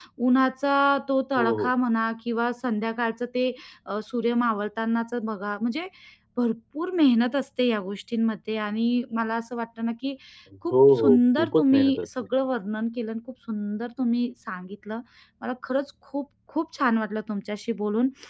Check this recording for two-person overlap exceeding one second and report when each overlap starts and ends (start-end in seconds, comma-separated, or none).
10.7-12.1